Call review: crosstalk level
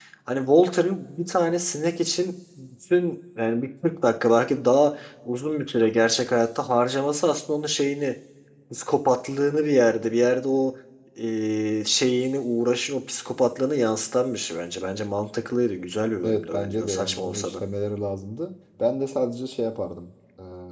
present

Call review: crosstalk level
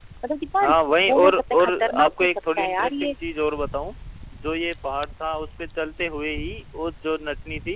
present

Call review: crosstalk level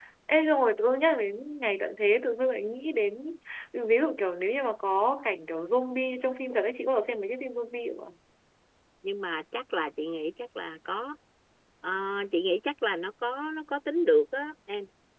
none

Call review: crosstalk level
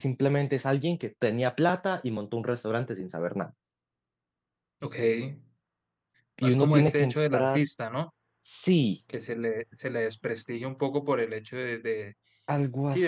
present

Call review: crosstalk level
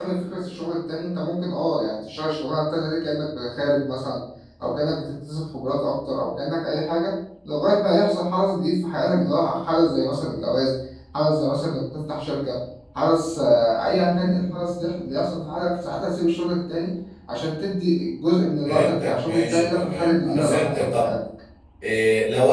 present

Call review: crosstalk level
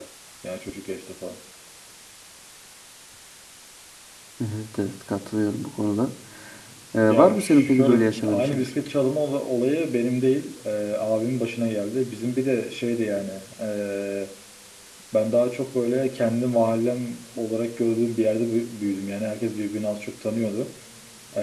present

